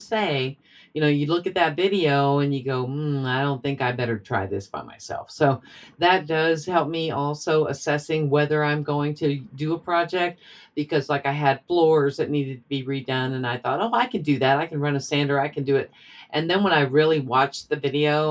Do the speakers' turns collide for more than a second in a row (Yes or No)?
No